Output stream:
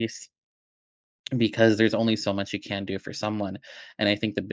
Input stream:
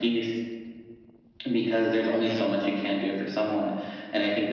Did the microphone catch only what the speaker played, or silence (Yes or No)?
No